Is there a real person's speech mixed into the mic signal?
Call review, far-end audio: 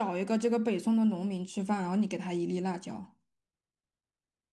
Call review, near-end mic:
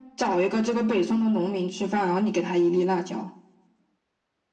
No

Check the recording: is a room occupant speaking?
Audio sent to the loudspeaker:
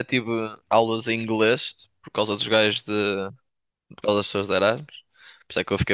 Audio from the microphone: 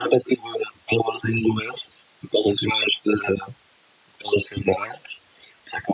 No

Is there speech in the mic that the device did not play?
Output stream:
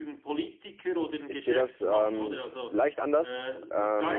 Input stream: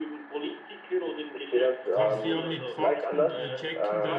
Yes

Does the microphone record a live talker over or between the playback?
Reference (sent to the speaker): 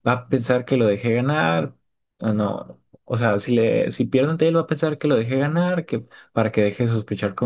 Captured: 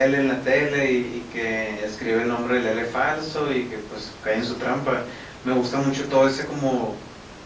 Yes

